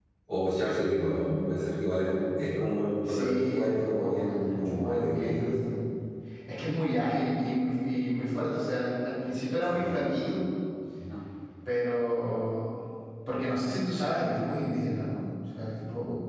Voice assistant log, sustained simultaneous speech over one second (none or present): present